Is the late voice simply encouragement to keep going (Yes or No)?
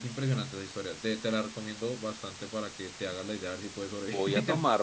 No